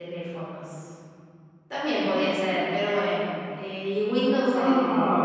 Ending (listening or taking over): taking over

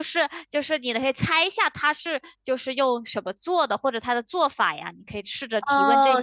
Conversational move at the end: taking over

